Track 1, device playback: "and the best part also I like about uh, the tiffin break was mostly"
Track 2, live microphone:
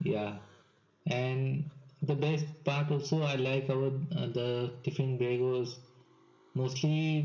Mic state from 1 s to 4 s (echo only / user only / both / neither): echo only